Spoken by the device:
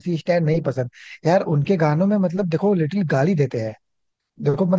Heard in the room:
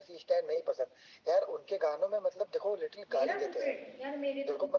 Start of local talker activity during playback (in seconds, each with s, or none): 3.1 s